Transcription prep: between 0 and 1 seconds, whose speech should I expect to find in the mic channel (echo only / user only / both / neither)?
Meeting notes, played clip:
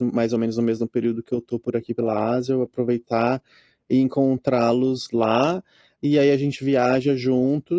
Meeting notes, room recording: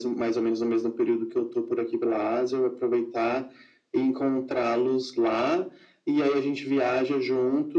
echo only